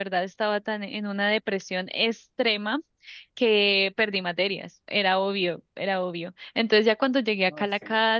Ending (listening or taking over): listening